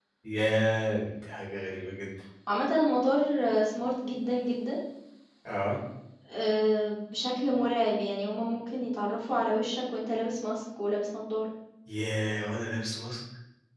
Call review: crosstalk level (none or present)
none